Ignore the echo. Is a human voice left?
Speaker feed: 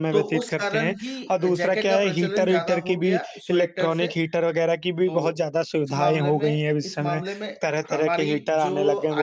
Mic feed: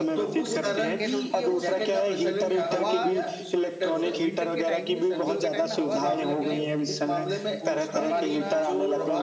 Yes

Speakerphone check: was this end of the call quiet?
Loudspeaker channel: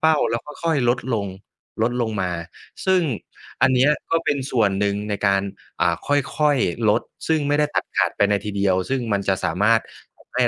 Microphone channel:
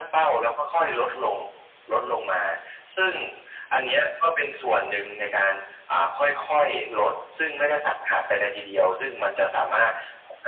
Yes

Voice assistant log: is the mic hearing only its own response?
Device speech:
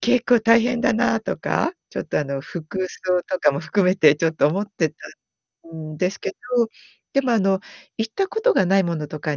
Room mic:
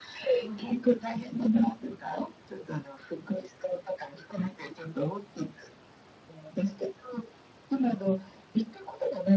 No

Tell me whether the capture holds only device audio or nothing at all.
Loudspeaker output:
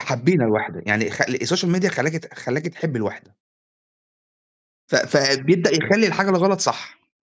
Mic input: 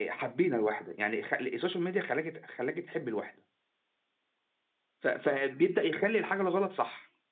Yes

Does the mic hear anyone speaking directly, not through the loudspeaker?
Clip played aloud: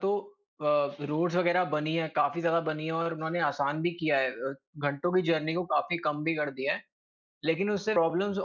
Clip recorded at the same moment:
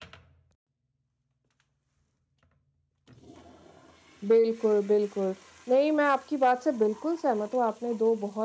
Yes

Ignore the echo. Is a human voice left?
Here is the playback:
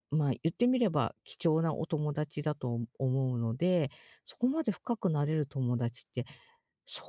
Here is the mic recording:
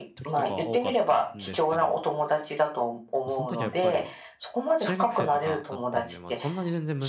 Yes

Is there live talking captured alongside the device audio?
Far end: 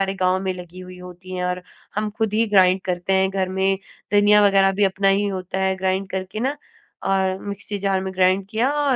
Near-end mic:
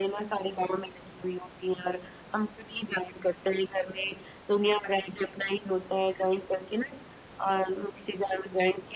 No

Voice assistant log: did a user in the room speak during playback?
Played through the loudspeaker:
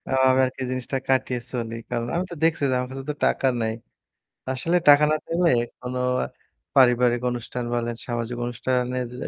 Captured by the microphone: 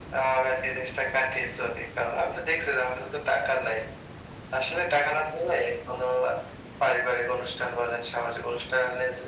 No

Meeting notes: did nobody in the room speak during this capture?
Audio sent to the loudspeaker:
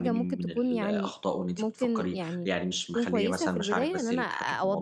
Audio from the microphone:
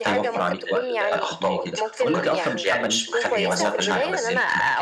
No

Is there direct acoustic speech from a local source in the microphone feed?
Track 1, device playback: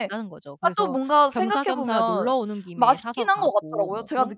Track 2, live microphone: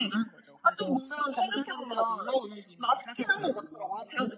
No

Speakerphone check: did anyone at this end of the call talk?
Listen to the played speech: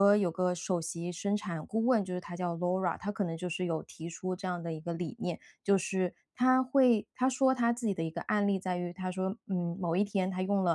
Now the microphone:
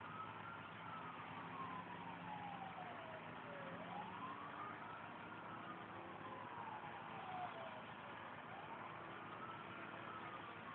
No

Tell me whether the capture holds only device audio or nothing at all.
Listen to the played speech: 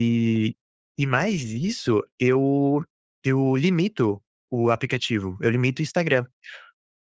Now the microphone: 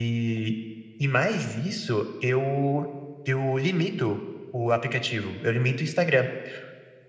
Yes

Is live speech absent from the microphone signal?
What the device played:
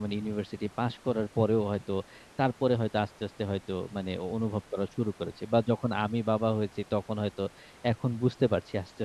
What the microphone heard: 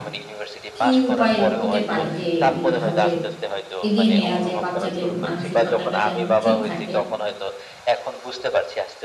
No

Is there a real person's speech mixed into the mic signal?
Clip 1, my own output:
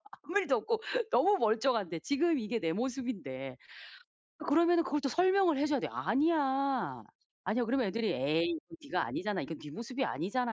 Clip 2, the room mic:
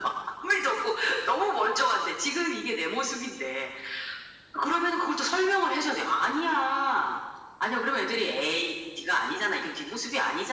No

